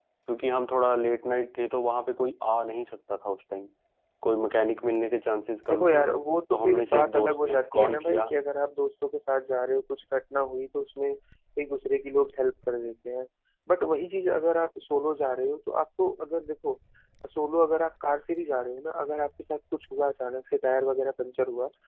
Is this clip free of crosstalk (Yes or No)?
No